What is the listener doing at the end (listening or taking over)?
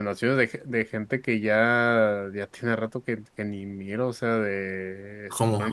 listening